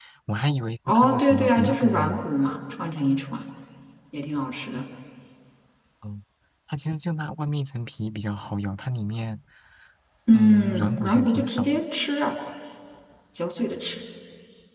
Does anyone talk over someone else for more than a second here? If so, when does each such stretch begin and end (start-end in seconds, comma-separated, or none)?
0.9-2.2, 10.3-11.8